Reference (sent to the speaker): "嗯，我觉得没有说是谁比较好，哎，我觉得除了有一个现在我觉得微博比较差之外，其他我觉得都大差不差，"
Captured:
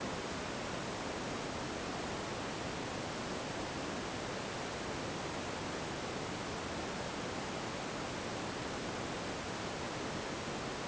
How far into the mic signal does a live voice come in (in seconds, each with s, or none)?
none